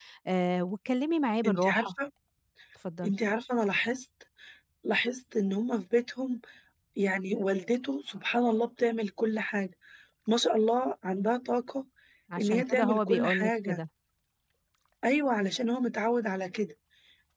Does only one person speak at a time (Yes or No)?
No